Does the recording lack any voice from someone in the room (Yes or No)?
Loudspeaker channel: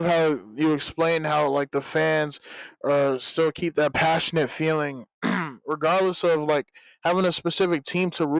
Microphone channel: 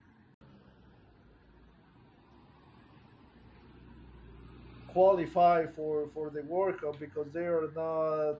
No